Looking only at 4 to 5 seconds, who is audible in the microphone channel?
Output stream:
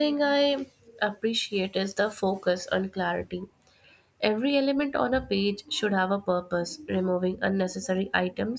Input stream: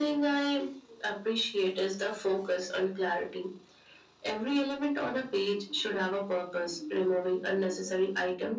echo only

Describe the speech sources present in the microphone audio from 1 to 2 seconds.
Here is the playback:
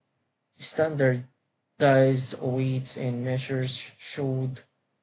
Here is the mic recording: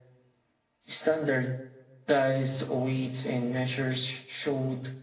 echo only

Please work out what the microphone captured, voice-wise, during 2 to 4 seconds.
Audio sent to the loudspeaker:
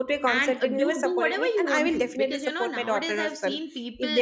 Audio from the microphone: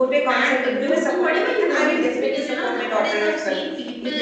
echo only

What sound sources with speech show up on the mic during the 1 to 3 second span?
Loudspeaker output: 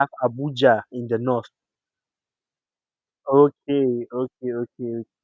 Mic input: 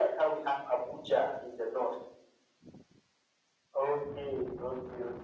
echo only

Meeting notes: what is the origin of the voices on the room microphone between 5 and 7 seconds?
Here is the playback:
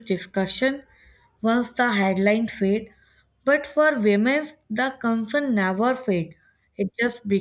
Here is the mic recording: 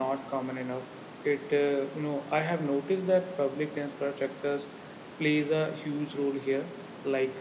user only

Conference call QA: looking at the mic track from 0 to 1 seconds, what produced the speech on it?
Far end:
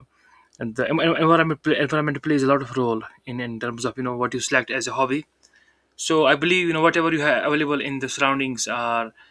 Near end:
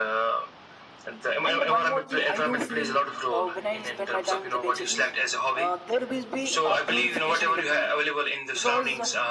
echo only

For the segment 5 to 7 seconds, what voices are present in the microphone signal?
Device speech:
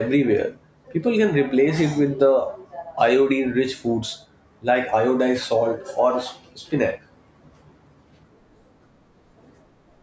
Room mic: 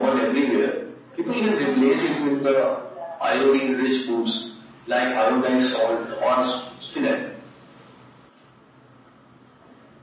echo only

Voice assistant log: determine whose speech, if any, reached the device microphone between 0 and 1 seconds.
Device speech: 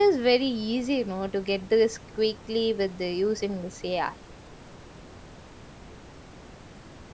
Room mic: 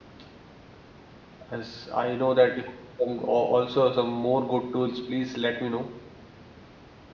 neither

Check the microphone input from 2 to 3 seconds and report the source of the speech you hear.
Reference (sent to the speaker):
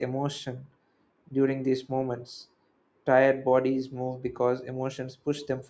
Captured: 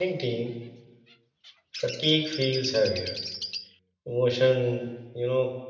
user only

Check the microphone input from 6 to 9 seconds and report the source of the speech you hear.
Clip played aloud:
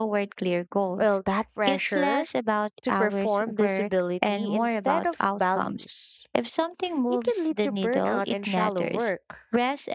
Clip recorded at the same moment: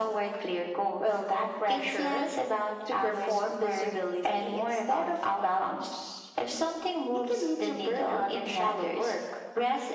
echo only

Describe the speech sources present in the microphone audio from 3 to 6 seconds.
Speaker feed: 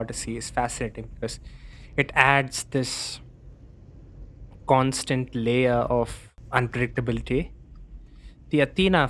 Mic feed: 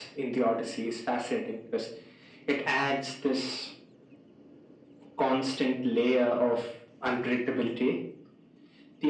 echo only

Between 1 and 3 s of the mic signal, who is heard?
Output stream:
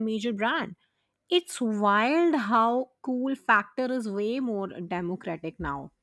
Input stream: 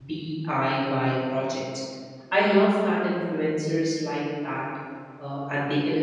user only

